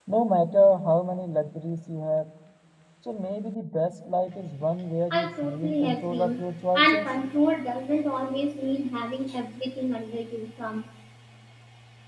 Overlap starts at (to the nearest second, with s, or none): 5 s